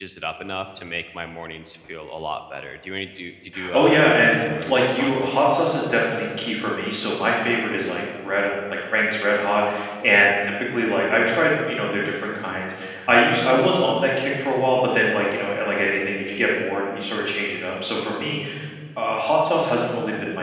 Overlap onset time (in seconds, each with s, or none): 3.5 s